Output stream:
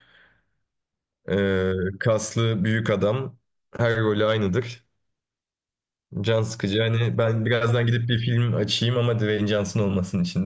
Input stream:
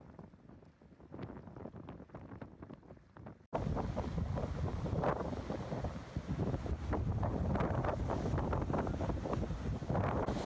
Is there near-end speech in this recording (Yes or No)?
No